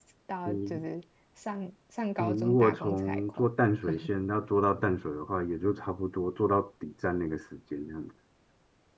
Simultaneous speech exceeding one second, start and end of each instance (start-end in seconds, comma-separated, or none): 2.2-3.5